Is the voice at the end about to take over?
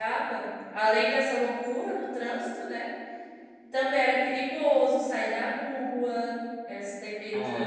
No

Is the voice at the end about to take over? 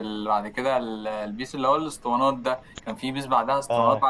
No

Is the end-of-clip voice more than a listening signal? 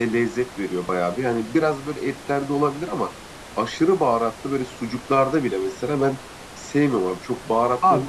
Yes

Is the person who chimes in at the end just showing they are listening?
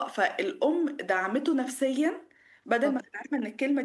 Yes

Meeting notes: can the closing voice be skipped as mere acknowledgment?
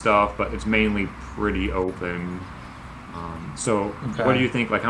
Yes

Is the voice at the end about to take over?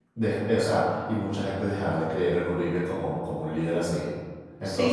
Yes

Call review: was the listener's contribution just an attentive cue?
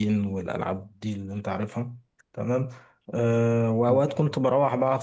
Yes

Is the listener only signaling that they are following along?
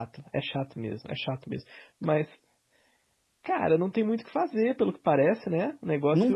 Yes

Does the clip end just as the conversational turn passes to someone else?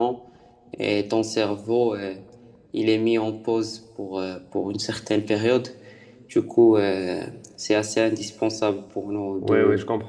Yes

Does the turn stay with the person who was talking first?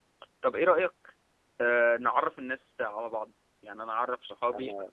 Yes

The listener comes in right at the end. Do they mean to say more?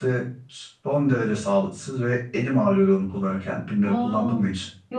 Yes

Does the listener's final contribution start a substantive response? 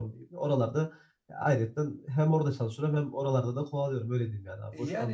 Yes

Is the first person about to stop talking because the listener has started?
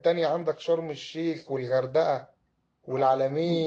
No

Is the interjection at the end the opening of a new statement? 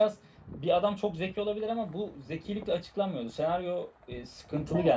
No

